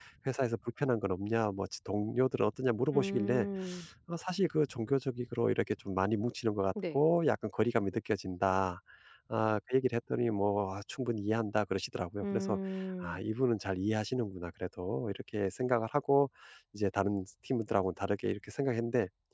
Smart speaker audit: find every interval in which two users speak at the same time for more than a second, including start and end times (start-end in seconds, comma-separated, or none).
none